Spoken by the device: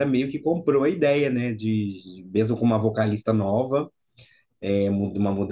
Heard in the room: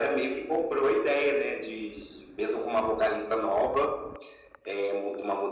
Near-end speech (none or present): none